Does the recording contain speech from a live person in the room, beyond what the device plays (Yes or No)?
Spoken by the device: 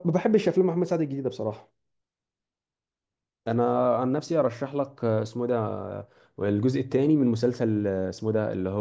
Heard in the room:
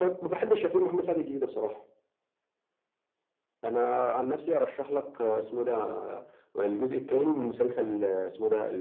No